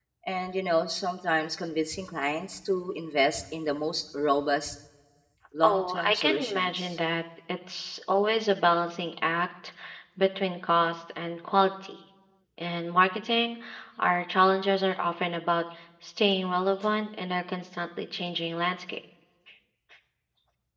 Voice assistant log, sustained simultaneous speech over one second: present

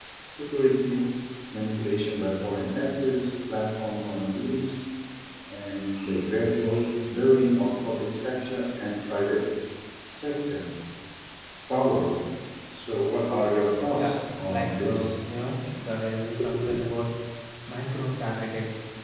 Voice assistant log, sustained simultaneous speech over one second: present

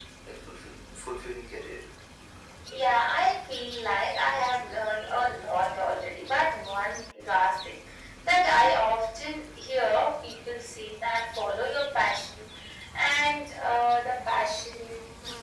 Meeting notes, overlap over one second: none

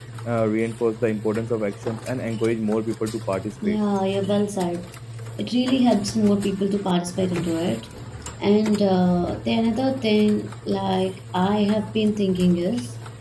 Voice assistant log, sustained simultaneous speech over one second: none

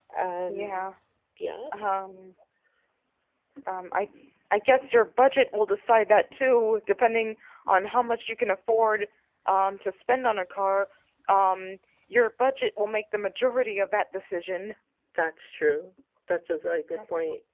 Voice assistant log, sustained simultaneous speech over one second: none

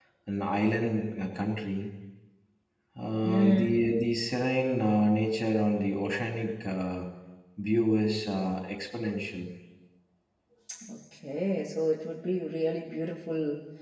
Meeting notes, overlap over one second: none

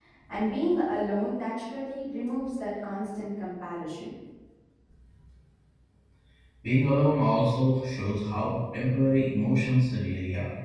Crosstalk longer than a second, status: none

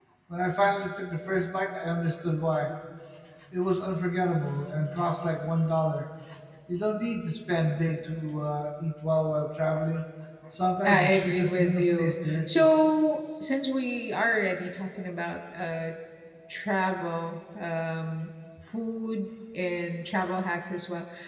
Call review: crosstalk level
present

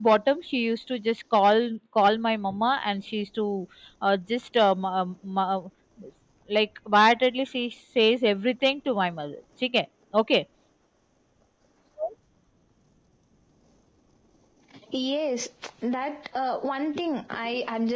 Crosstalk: none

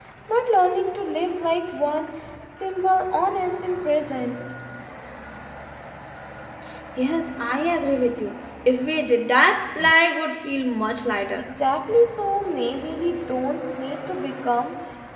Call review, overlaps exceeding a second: none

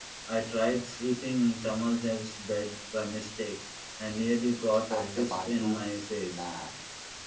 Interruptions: present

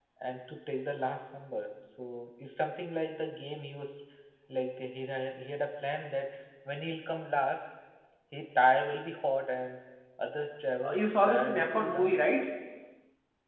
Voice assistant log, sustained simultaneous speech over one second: present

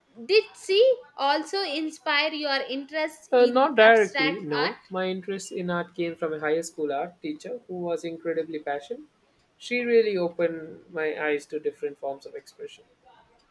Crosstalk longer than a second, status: present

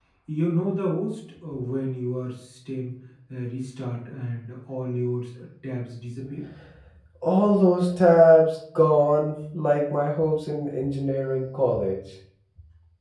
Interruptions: none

